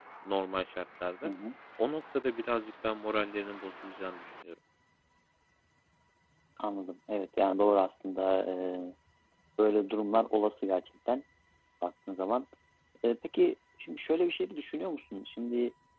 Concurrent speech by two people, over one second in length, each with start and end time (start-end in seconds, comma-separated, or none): none